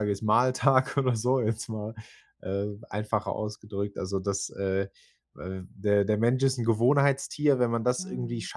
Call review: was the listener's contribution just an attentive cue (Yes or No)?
Yes